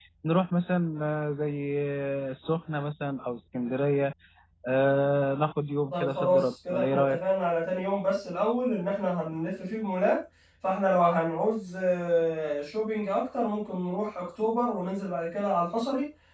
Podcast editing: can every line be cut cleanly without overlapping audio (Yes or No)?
No